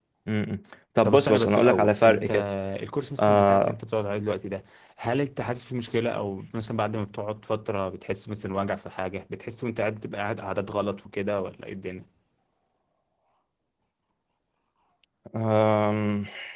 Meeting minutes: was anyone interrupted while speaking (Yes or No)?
Yes